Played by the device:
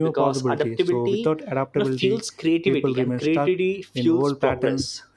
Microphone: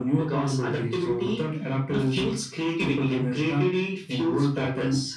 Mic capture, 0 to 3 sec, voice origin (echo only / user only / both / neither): echo only